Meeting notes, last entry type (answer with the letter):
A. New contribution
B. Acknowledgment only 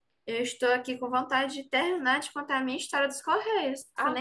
A